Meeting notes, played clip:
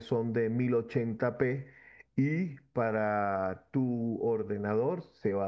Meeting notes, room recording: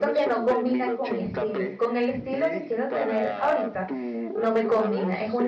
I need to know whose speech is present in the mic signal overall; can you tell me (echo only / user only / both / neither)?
both